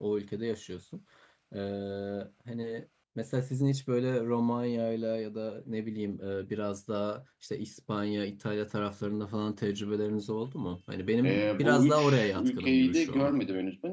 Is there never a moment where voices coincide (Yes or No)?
No